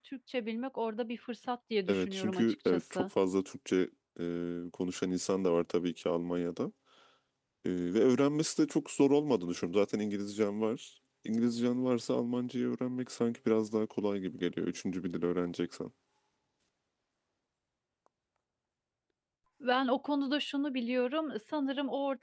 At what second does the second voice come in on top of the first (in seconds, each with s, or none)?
1.9 s